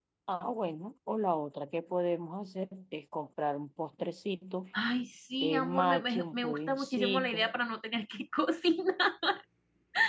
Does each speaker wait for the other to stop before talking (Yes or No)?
No